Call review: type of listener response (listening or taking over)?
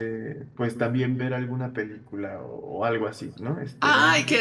taking over